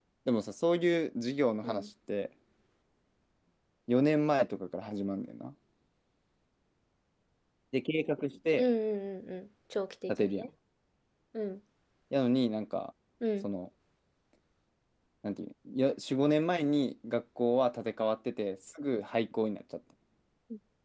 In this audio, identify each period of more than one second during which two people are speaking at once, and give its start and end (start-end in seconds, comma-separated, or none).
none